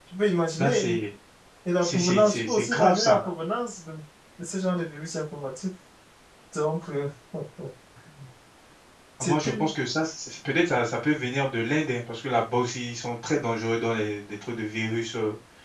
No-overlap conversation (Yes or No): No